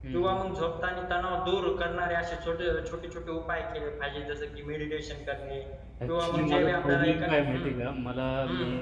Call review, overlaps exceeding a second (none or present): present